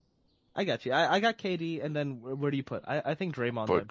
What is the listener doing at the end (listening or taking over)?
taking over